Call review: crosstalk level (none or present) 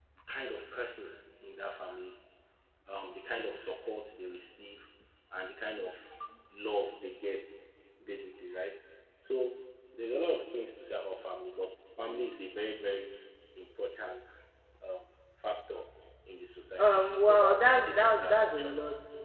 present